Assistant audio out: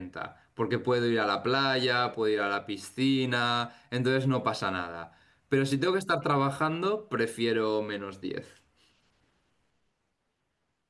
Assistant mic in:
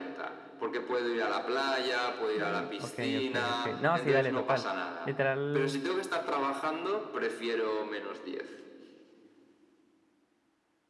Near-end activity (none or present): present